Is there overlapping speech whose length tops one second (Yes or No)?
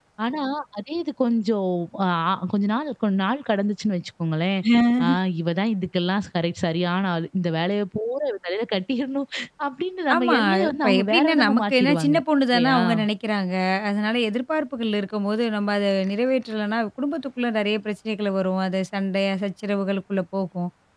Yes